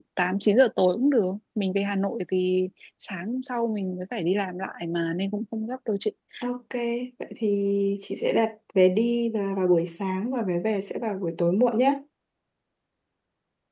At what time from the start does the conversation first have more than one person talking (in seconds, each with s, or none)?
none